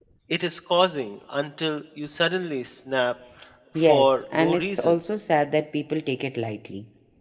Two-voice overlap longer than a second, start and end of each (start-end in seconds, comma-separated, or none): 3.8-5.0